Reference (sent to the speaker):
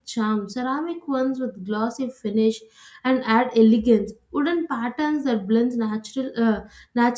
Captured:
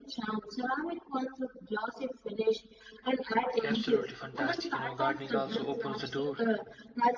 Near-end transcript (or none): Absolutely fantastic. You know, gardening also opens the door